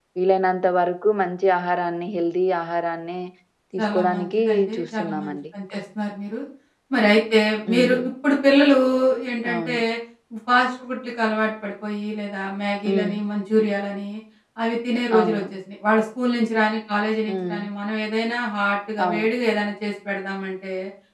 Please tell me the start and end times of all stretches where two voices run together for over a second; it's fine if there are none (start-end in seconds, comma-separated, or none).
3.8-5.4